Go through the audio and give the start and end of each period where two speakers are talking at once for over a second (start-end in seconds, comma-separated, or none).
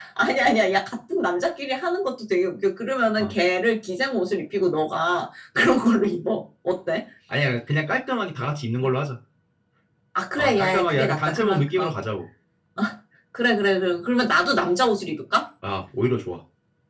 10.4-11.9